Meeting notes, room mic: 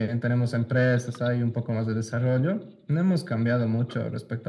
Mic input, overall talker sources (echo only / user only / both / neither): echo only